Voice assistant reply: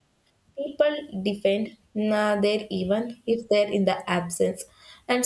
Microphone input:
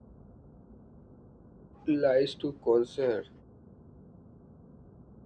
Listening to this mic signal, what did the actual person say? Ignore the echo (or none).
lies to concern